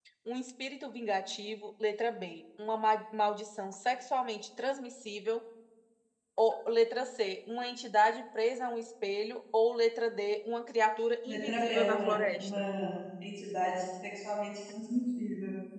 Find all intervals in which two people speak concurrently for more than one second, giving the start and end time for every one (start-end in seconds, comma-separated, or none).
11.2-12.6